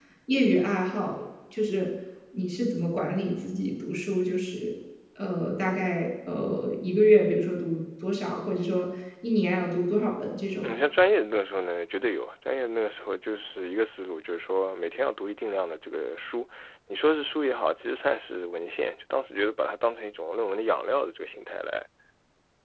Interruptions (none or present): none